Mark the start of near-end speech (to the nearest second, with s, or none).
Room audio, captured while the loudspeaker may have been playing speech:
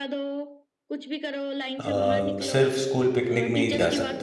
2 s